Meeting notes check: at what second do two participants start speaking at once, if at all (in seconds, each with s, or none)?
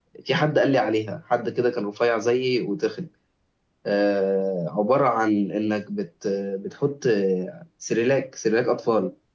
none